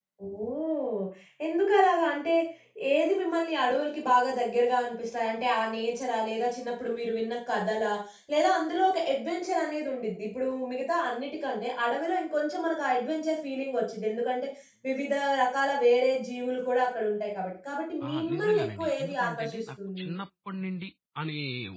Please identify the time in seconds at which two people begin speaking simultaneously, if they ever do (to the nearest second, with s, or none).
18 s